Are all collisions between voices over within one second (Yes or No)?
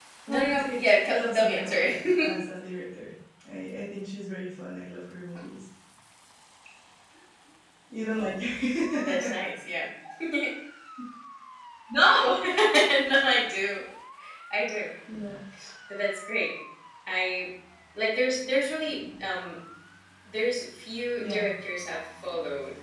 No